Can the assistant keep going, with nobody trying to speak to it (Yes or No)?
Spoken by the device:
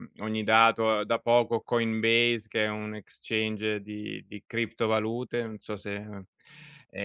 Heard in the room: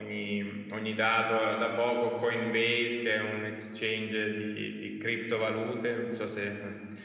Yes